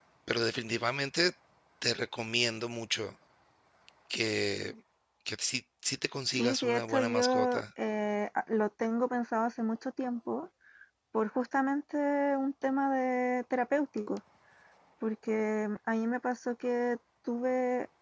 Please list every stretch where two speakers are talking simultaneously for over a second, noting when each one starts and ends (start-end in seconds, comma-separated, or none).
6.4-7.6